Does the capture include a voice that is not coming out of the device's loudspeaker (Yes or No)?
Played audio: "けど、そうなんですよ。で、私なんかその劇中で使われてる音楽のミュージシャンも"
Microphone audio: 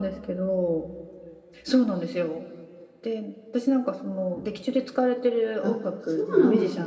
Yes